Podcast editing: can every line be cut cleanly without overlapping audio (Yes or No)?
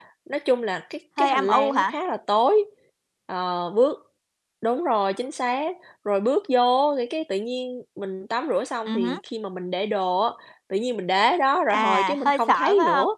No